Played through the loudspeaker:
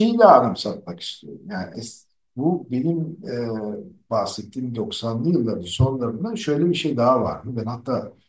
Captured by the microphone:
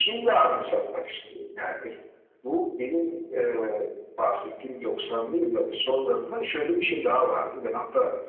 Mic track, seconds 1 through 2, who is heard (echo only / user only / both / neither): echo only